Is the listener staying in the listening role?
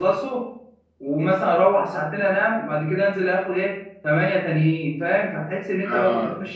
Yes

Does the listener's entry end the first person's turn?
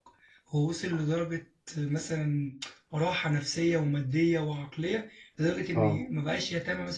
No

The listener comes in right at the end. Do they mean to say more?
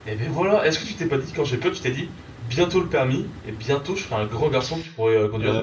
Yes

